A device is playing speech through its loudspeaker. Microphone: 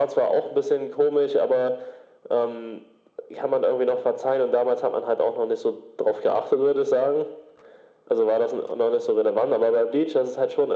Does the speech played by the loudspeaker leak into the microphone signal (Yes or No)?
Yes